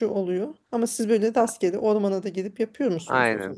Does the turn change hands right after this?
Yes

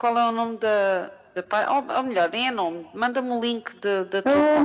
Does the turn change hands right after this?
Yes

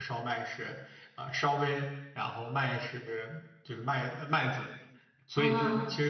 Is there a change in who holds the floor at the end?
No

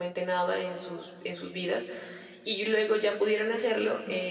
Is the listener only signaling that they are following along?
Yes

